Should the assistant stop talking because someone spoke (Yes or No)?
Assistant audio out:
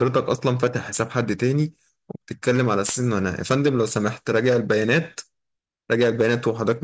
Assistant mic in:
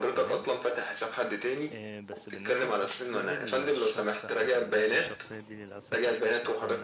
Yes